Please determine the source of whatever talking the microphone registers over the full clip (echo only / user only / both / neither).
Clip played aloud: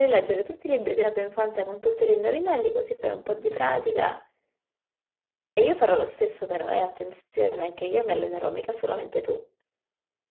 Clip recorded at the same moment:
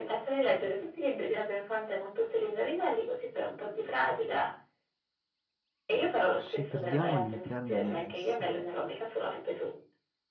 both